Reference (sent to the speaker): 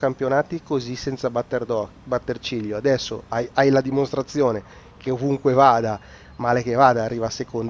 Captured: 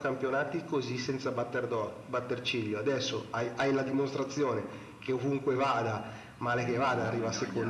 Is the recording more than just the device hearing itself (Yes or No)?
Yes